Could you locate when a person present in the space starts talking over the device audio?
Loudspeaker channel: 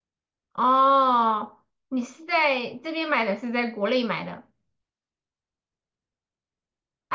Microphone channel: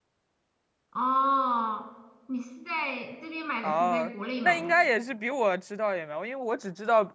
3.6 s

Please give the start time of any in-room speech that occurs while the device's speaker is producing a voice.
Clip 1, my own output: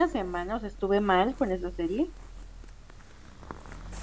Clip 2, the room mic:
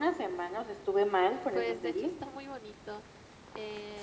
1.5 s

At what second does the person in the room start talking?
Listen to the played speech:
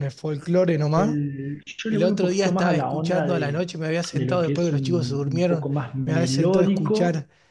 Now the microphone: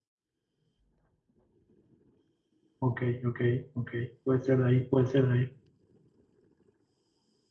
2.8 s

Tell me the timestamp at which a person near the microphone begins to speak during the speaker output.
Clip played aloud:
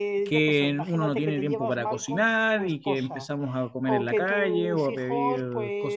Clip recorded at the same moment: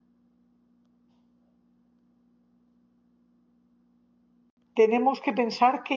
4.8 s

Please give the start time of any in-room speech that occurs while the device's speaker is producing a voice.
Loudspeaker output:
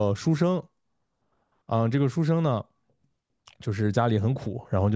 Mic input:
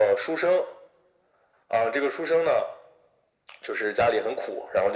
none

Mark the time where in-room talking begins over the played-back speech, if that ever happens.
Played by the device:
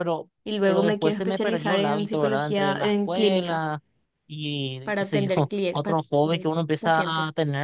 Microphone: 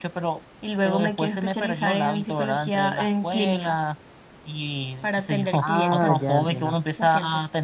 5.6 s

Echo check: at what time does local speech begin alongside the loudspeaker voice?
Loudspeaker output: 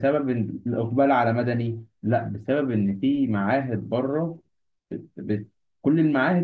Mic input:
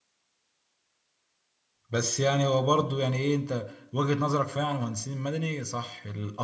1.9 s

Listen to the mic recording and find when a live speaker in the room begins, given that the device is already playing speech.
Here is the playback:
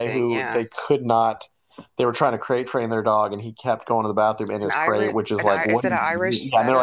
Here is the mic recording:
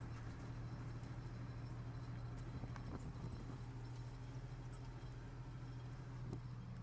none

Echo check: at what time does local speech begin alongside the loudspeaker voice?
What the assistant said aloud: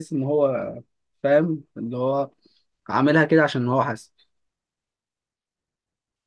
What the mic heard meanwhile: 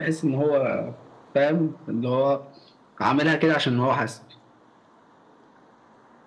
none

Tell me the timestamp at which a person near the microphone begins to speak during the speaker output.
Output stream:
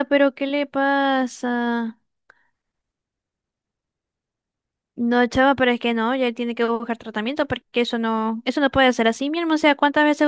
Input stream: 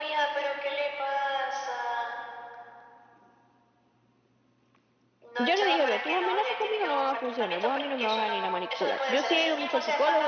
5.4 s

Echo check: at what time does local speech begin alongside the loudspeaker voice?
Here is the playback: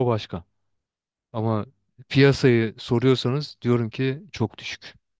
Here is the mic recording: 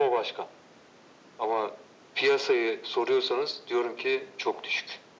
none

